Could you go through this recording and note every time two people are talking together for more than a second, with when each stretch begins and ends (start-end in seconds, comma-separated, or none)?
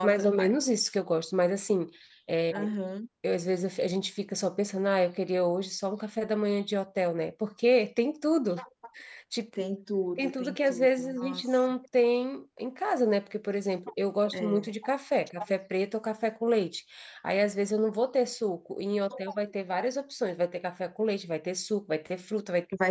10.2-11.7